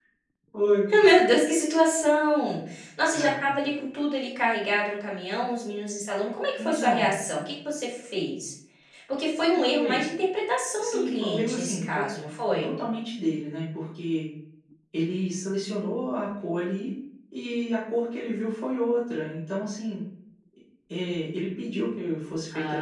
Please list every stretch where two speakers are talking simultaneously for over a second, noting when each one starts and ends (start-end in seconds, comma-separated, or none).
10.8-12.1